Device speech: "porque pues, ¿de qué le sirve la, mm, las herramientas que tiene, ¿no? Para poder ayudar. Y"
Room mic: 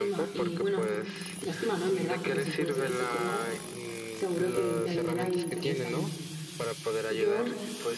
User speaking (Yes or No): Yes